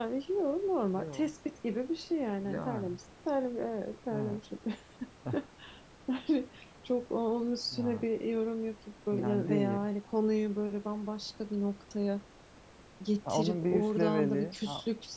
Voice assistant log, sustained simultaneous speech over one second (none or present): present